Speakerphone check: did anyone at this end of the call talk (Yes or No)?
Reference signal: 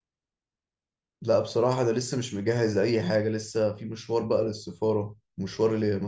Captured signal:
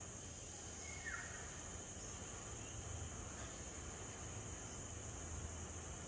No